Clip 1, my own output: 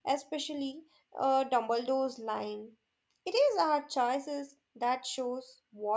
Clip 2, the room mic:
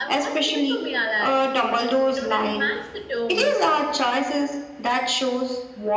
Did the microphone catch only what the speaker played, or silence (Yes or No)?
No